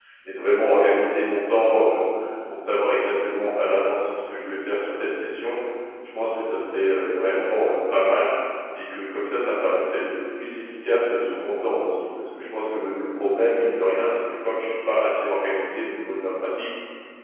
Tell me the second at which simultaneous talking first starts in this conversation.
none

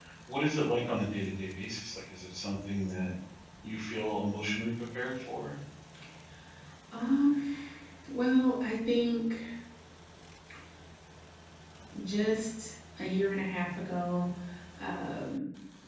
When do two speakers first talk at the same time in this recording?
none

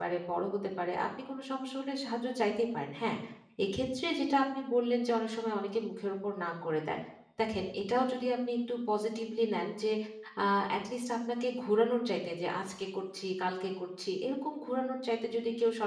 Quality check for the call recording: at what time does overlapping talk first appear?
none

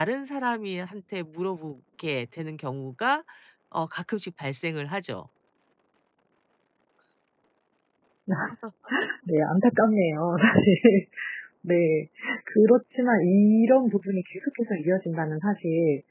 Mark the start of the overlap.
none

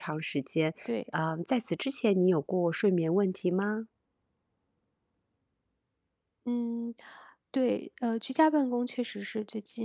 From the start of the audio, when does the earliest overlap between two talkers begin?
none

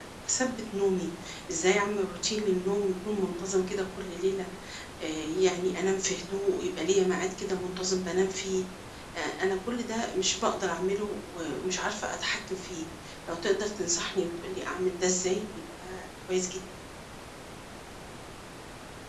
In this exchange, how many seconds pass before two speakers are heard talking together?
none

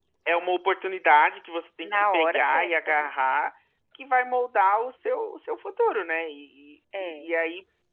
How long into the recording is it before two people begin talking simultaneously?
2 s

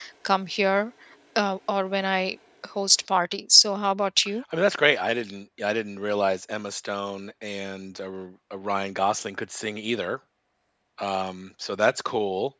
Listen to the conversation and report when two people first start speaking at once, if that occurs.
none

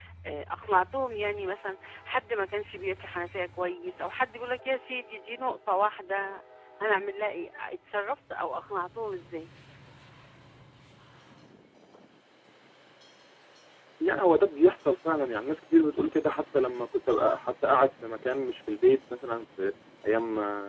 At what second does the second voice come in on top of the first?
none

